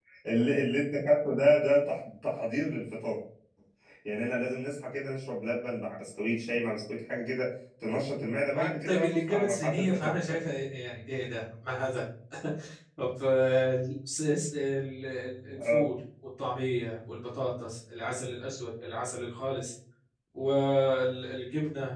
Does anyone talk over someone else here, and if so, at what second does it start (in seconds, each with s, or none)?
8.5 s